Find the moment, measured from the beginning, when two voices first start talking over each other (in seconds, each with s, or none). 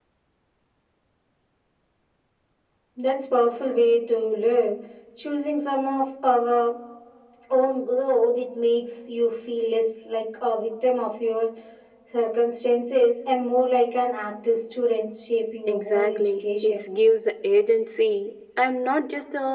15.7 s